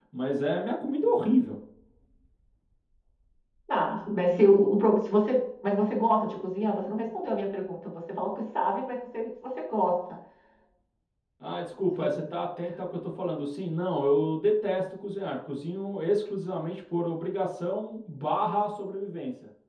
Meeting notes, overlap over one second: none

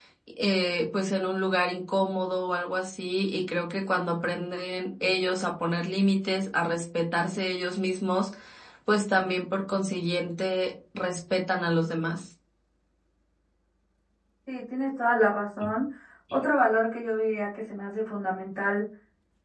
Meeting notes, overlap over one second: none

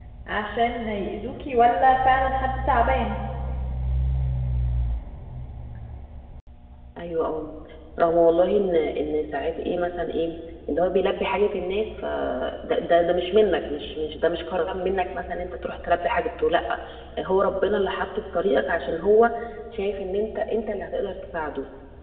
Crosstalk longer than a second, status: none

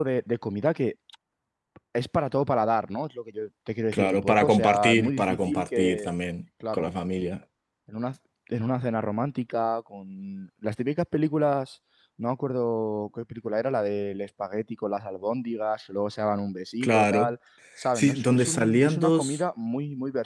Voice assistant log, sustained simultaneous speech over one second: present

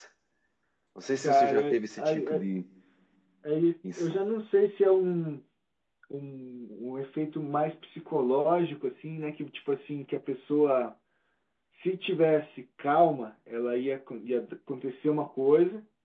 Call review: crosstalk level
present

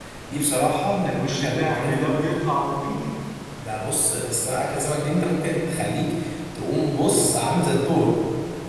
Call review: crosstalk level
present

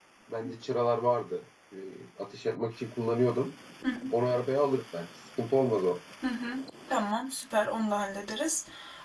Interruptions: none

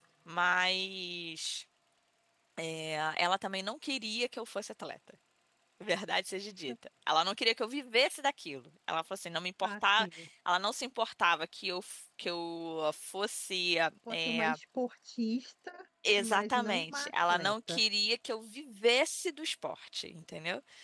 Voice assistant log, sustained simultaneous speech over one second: present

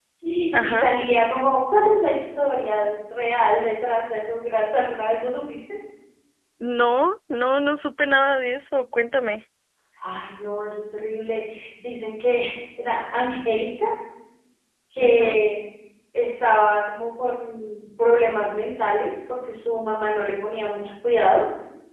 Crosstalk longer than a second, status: none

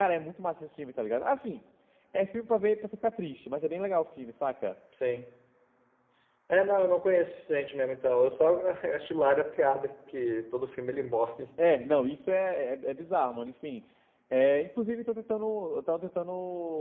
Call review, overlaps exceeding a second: none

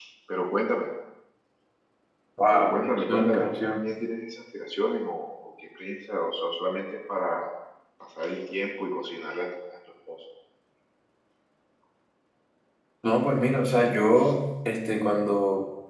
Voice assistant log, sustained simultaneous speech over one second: present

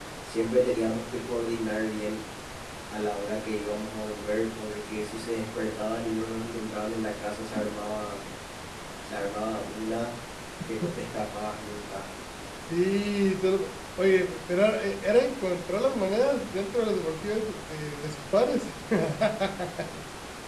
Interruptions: none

